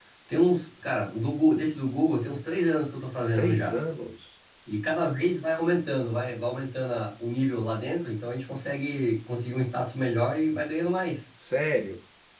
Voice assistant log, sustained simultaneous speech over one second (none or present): none